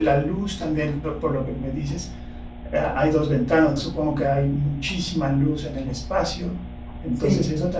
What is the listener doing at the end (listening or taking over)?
listening